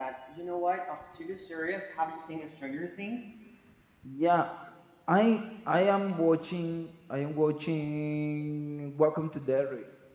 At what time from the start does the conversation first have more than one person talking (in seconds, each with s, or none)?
none